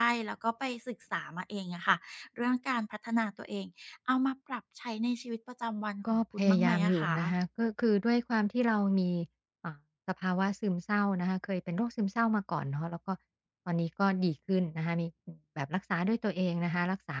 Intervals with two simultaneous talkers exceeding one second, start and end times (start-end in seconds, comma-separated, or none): 6.1-7.3